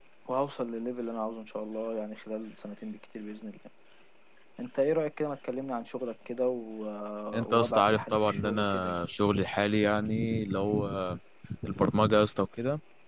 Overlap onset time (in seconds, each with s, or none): 7.5 s